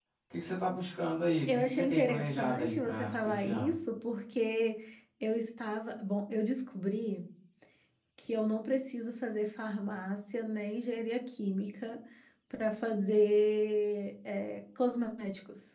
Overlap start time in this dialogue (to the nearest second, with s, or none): 1 s